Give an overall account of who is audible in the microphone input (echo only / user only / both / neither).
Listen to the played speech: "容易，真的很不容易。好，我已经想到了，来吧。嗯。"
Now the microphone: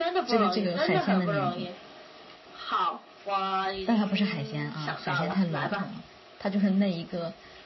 both